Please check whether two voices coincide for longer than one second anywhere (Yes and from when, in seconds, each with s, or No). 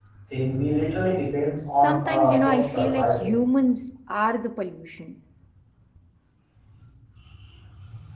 Yes, from 1.7 s